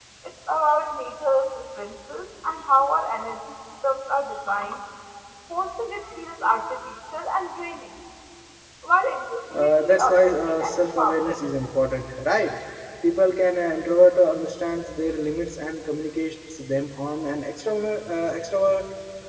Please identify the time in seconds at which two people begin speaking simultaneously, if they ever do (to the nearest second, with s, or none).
10 s